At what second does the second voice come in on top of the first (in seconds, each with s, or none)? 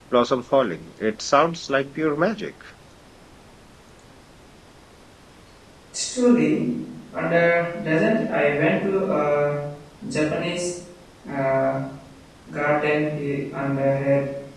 none